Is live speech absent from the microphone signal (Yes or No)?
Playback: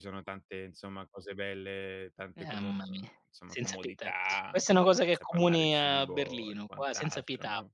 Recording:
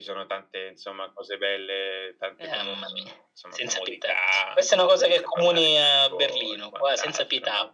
Yes